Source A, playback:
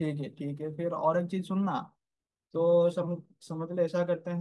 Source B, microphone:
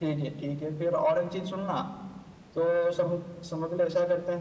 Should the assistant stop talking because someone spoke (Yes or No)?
No